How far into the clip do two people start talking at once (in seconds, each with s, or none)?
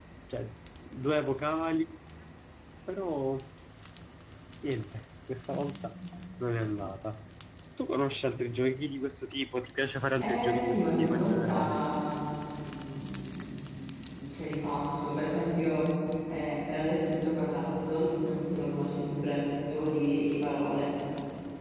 10.2 s